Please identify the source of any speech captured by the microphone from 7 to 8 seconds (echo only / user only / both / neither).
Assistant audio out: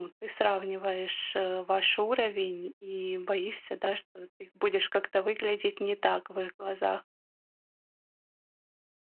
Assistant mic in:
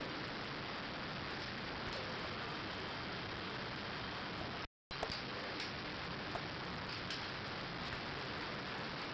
neither